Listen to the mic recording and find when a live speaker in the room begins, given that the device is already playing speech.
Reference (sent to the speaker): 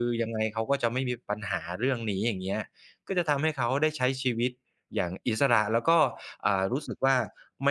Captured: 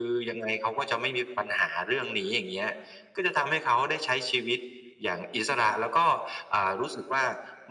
none

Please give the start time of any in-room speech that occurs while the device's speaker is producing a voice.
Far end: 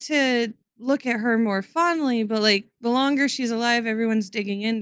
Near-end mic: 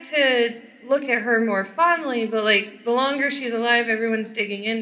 none

